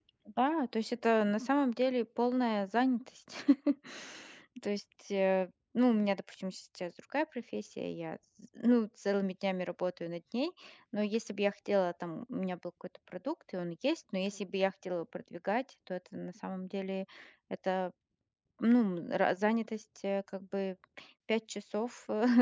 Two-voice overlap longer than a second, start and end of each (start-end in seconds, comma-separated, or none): none